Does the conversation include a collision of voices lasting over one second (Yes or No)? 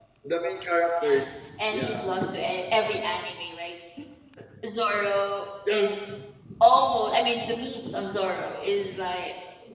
No